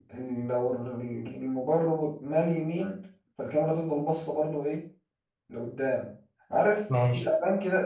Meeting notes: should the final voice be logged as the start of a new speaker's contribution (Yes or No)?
No